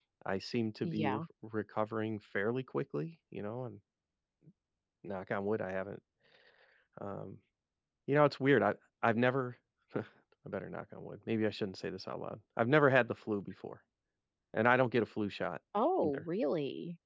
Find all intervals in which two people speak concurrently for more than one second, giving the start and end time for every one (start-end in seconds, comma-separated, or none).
none